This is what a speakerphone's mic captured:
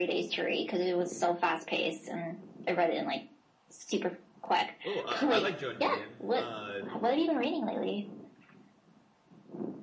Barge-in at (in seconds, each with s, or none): 4.8 s